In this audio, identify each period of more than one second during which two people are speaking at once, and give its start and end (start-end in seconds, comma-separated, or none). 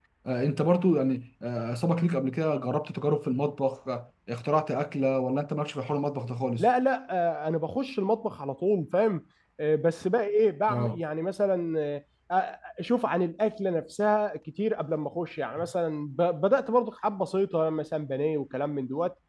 none